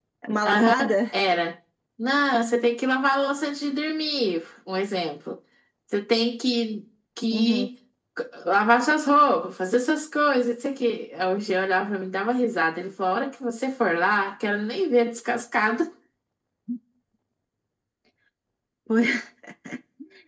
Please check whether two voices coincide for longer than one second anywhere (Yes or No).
No